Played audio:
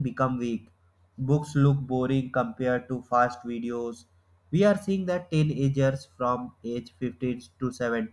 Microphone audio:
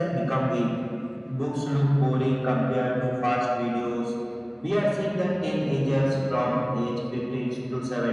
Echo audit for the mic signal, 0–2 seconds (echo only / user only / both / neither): echo only